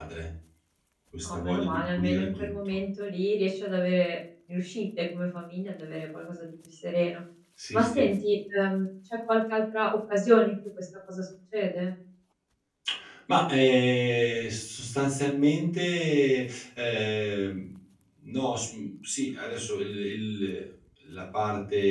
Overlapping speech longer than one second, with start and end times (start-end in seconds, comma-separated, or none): 1.2-2.5